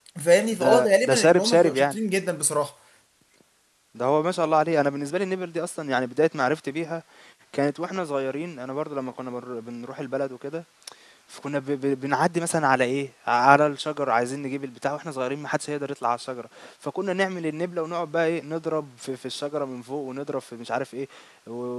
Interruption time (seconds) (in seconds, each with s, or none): 0.6 s